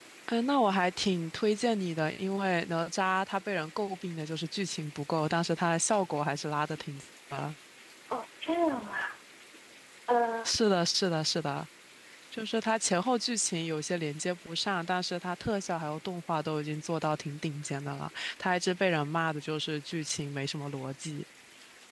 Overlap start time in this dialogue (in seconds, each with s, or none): none